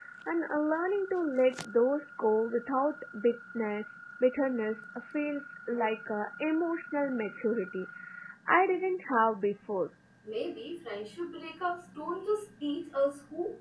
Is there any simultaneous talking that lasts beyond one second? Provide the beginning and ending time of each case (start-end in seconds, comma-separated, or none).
none